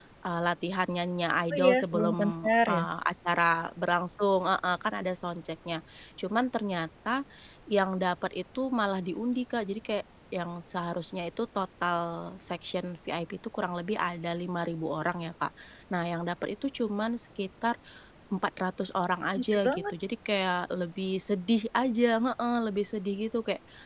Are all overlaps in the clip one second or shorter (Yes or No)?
No